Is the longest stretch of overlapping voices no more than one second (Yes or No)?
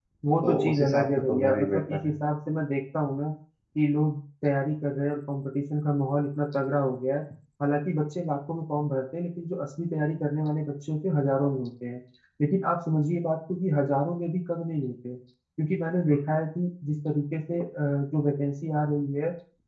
No